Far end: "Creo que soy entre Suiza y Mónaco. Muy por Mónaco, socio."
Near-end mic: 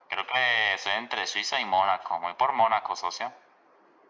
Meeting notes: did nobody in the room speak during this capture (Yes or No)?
Yes